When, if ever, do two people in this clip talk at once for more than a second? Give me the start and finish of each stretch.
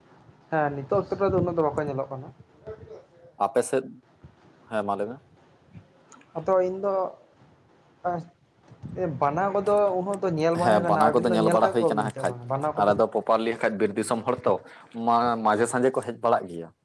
10.6-12.3

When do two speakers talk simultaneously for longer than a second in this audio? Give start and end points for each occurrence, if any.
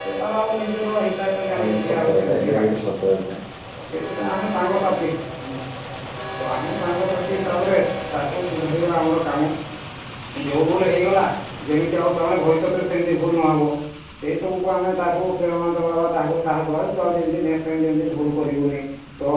1.6-2.8

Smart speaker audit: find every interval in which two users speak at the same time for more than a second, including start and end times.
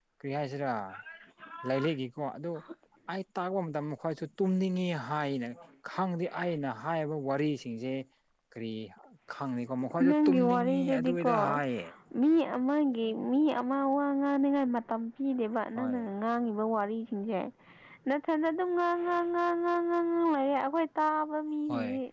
10.0-11.3

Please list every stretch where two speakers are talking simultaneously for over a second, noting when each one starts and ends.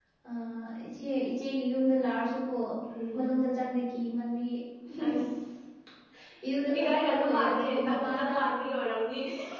6.8-8.3

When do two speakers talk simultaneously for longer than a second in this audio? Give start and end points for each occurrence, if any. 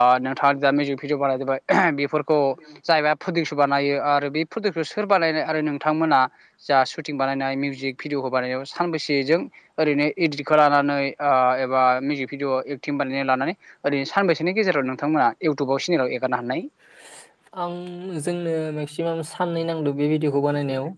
none

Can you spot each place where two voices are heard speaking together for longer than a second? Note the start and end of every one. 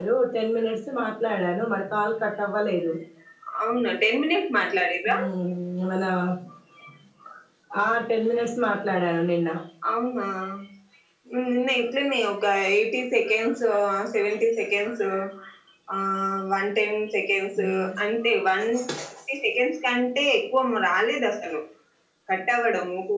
none

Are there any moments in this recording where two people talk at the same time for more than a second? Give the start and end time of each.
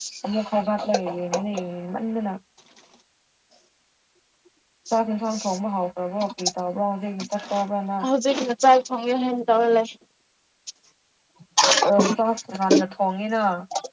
none

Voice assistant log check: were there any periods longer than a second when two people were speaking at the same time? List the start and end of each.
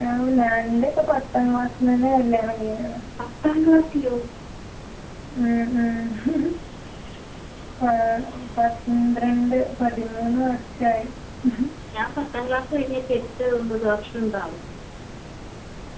none

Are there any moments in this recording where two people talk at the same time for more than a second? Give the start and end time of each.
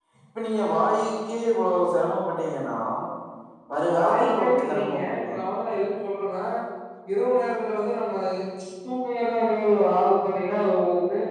3.9-5.3

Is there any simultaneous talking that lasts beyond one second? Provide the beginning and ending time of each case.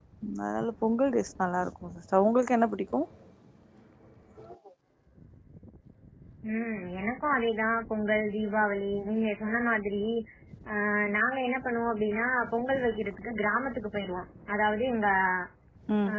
none

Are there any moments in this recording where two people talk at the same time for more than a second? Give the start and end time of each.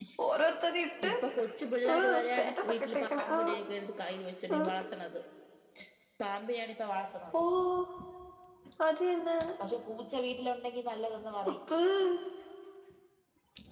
1.9-3.6

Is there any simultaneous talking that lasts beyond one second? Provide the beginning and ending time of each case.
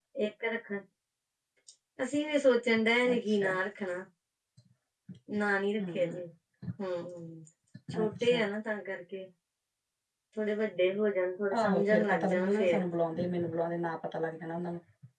11.6-12.8

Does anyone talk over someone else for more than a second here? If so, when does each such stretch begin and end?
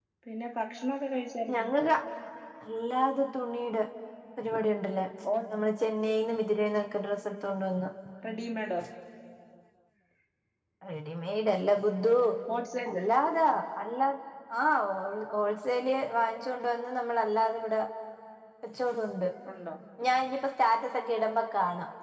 none

